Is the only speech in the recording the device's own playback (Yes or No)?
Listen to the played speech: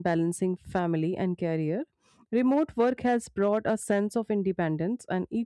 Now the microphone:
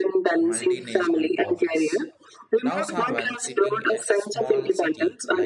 No